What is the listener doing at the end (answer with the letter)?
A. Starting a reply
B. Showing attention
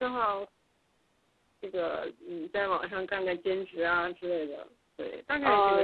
A